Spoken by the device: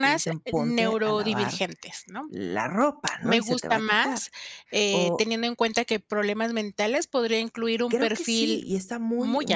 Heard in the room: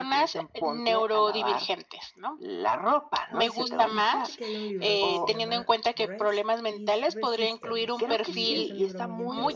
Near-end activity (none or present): present